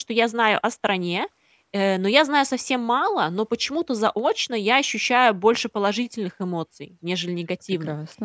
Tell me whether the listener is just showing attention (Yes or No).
Yes